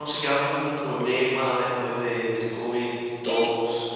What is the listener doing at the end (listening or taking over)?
taking over